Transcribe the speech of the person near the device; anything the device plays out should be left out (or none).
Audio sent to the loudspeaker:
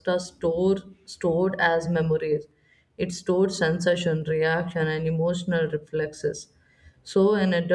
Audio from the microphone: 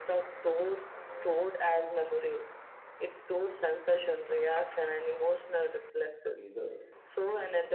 pleaser,